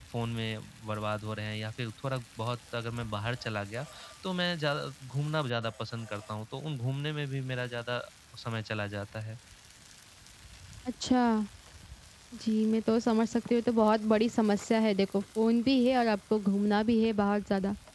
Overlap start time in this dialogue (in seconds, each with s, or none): none